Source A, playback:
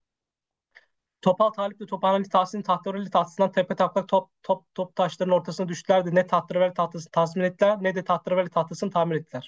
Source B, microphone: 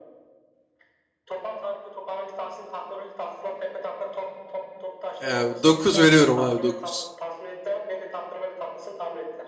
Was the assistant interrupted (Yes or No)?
Yes